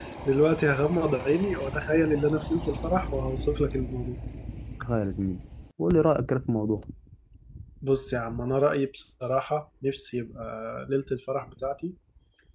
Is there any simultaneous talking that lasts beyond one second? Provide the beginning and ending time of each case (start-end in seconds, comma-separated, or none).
none